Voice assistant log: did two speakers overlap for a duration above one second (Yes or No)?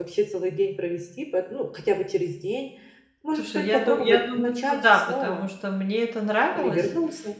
Yes